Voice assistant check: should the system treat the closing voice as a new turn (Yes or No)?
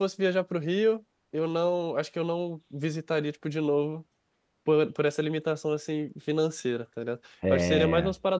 No